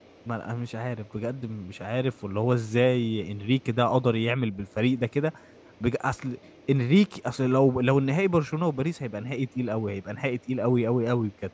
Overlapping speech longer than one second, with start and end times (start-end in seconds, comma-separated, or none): none